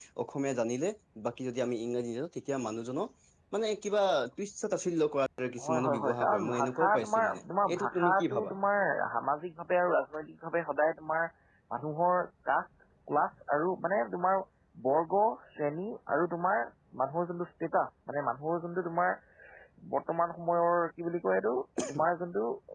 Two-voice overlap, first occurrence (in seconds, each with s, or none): 5.6 s